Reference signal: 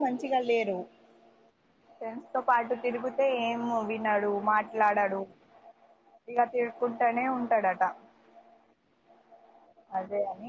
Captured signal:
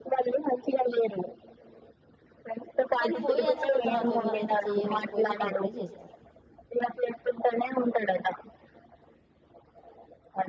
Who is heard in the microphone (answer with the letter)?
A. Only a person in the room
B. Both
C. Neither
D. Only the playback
B